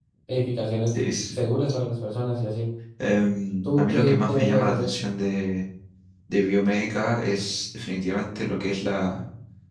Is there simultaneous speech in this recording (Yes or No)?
Yes